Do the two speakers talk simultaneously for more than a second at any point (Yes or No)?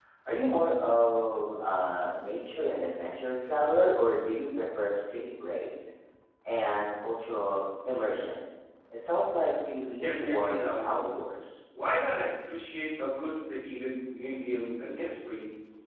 Yes